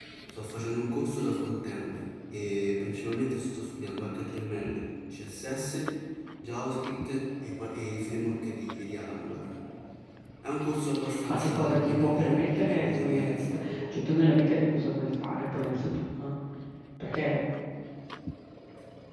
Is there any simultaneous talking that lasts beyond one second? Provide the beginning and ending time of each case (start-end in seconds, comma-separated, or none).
11.3-14.0